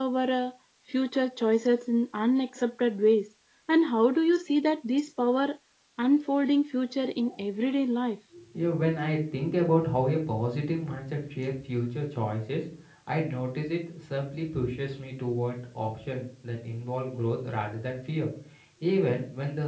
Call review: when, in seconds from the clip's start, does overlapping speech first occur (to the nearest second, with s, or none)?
none